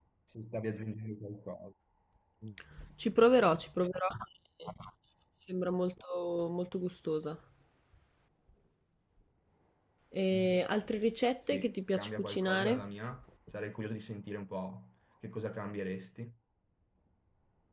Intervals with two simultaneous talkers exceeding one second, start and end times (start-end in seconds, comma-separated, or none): 11.5-12.8